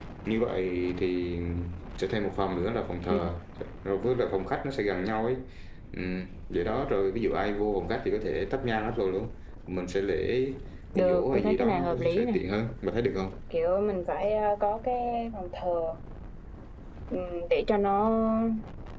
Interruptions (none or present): present